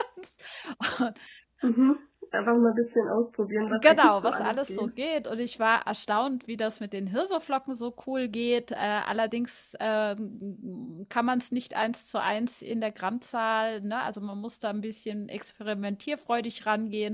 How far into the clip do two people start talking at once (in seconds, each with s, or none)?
3.6 s